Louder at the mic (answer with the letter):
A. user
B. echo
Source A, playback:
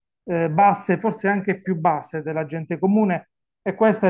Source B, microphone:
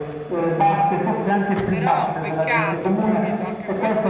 B